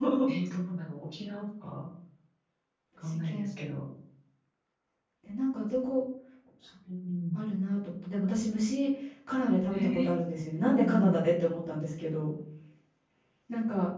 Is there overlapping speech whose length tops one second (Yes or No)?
No